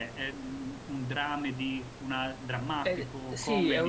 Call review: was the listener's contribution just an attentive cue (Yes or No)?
No